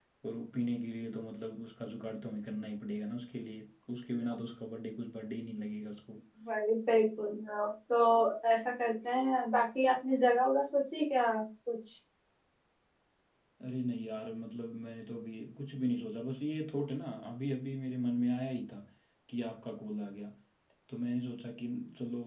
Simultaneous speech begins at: none

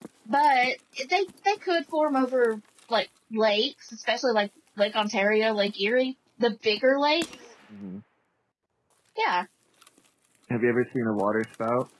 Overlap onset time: none

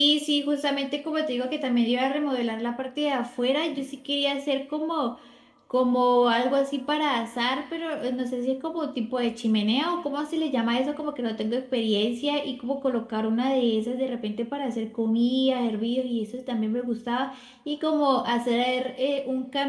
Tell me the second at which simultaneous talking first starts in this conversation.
none

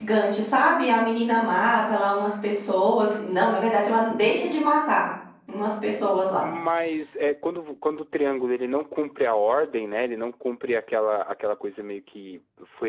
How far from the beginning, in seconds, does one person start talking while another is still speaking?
none

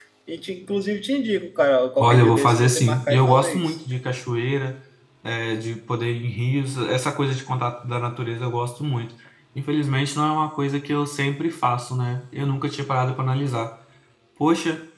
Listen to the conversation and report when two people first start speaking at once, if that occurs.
2.0 s

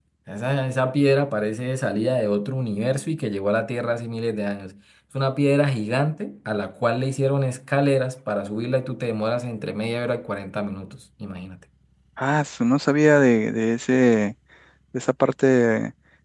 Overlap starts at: none

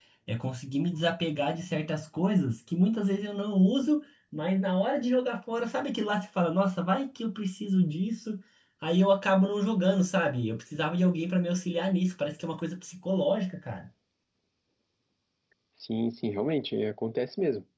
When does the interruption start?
none

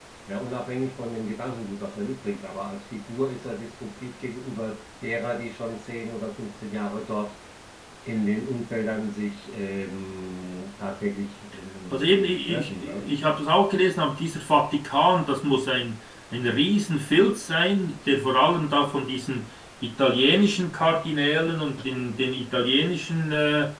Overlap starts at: 11.9 s

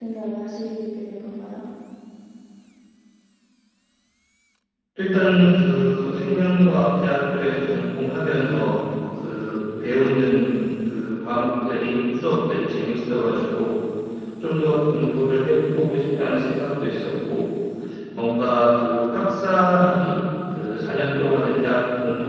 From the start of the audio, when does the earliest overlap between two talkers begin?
none

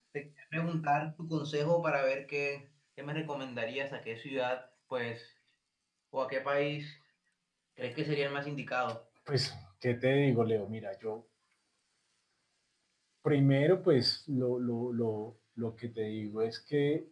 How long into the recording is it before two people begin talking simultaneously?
none

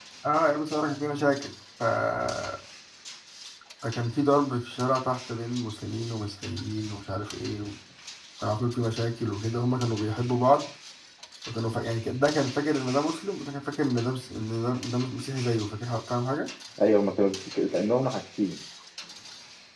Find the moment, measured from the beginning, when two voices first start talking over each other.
none

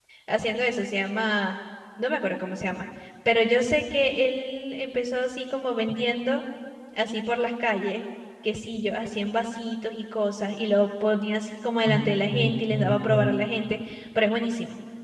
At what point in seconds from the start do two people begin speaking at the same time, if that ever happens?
11.9 s

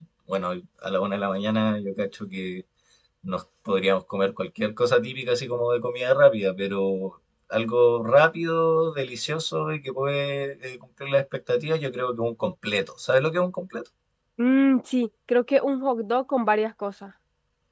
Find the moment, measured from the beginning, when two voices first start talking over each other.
none

